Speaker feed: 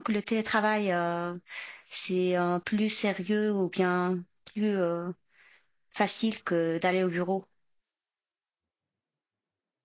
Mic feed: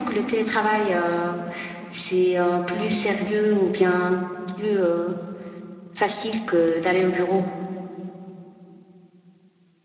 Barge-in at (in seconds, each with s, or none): none